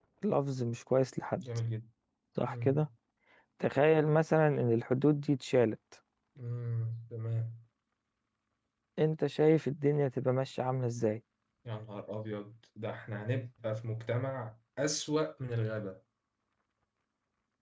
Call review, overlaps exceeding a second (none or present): none